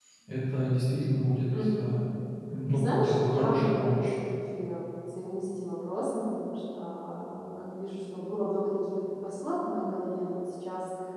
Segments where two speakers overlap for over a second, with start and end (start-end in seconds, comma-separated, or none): 2.7-4.2